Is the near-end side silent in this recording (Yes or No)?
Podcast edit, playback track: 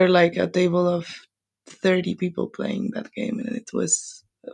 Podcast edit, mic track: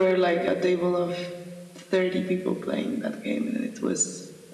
Yes